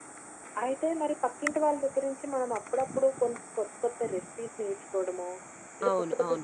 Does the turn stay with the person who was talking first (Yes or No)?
Yes